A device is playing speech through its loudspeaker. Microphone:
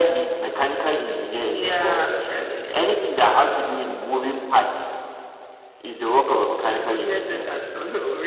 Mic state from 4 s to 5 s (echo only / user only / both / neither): echo only